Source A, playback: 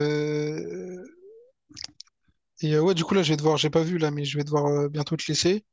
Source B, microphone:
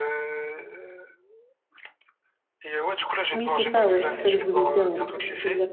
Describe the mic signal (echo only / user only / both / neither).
both